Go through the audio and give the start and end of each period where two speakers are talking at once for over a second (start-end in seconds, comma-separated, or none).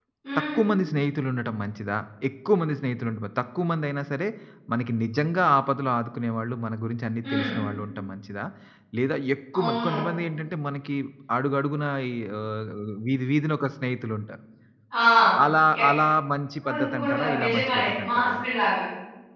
16.7-18.3